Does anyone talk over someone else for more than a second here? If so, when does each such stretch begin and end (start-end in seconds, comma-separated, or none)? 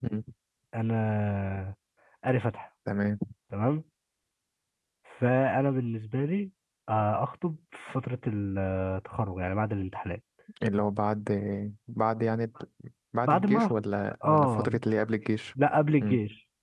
none